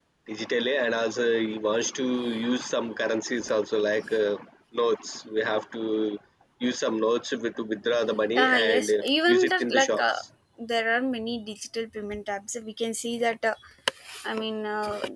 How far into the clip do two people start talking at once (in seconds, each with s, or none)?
8.4 s